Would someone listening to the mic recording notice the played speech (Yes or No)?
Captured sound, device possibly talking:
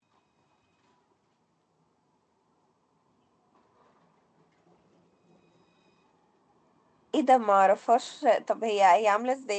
No